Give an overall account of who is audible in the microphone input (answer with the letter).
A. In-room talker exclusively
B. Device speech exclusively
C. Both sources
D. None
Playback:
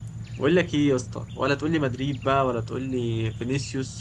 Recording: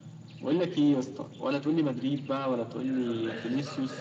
C